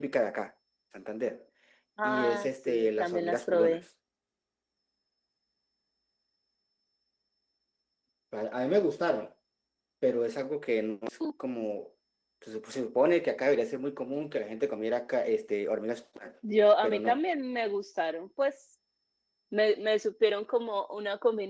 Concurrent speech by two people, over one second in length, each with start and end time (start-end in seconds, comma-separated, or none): 2.0-3.8